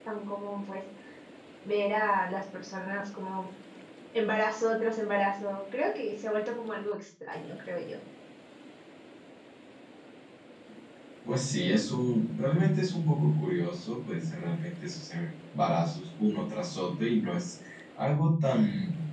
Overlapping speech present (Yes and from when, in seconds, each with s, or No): No